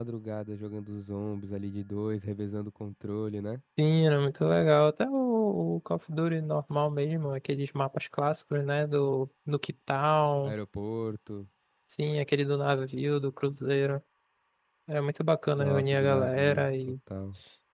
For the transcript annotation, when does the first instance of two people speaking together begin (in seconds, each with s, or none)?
15.6 s